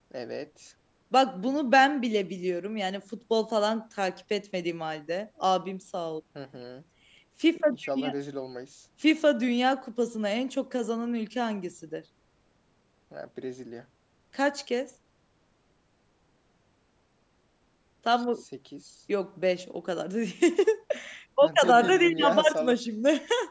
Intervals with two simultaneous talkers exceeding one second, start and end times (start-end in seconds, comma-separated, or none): 21.4-22.8